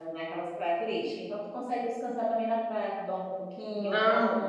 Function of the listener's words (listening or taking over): taking over